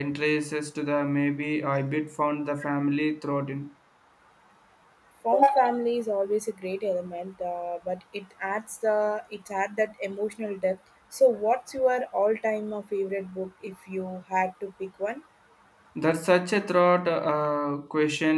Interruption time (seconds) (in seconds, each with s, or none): none